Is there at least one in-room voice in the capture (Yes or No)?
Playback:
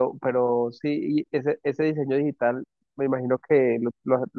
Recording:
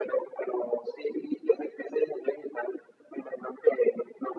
No